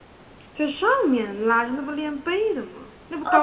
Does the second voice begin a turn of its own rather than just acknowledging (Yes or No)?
Yes